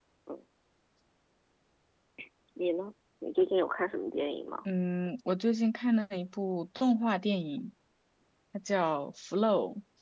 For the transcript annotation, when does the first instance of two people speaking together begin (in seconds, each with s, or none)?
none